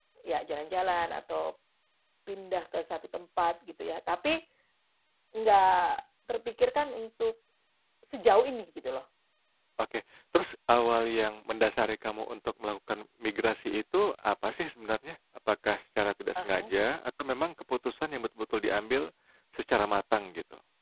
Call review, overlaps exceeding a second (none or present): none